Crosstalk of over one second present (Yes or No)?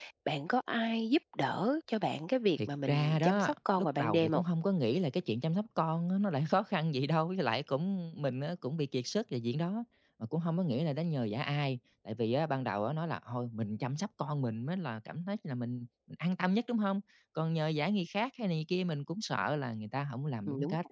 Yes